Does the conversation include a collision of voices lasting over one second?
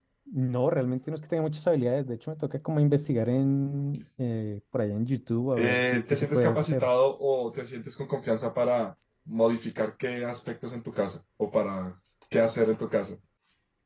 Yes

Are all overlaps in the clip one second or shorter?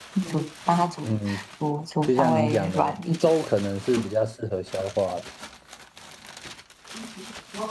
No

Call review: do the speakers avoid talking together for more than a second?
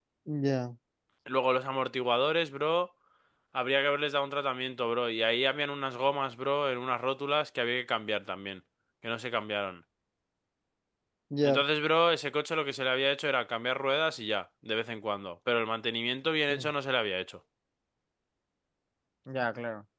Yes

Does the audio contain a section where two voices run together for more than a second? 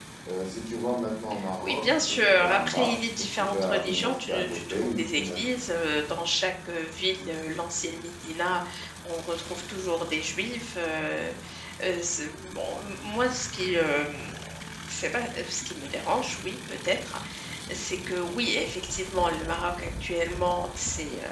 Yes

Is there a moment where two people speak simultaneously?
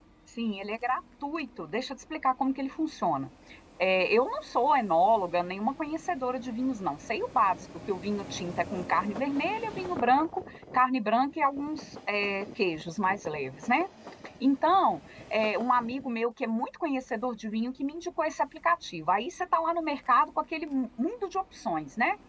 No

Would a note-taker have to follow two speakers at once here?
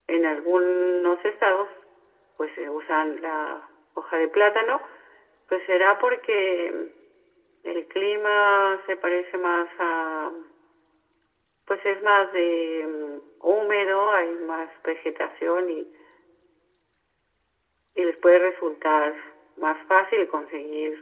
No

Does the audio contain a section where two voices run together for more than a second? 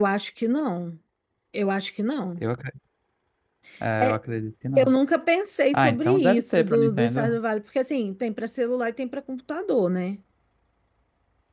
Yes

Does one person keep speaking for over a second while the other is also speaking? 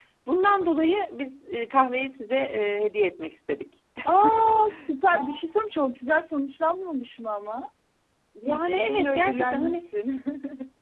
Yes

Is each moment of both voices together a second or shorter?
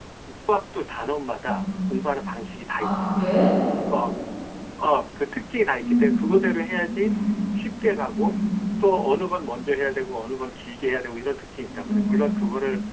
Yes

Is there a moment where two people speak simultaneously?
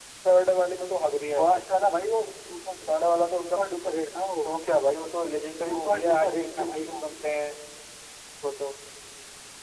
Yes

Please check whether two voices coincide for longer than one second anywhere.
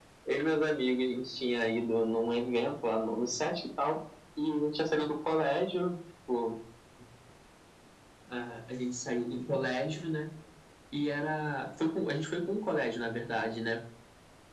No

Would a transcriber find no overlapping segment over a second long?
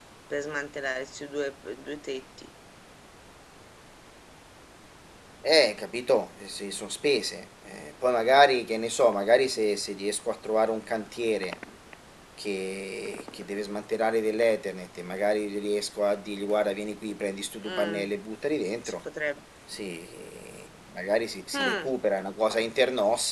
Yes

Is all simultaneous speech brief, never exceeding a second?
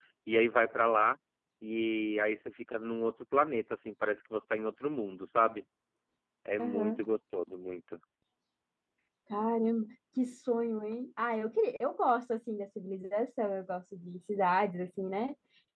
Yes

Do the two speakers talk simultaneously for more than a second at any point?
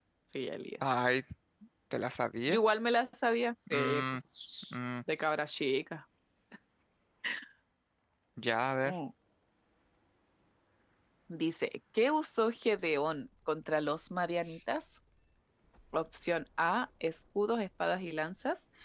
No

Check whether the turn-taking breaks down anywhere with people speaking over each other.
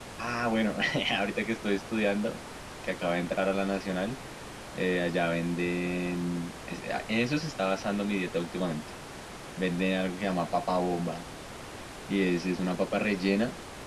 No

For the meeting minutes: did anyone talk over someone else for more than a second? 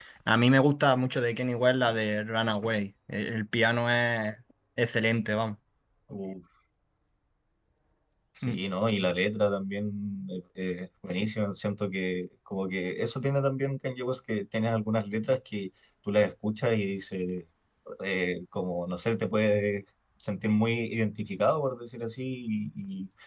No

